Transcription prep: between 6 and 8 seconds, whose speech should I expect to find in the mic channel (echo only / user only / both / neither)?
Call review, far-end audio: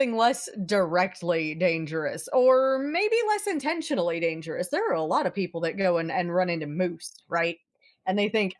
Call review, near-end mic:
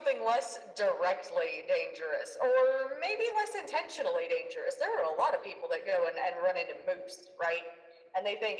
echo only